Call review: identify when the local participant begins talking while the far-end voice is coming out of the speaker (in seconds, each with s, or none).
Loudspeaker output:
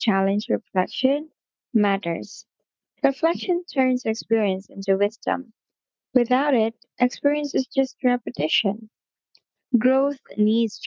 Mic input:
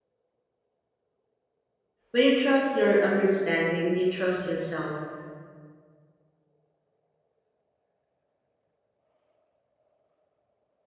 2.1 s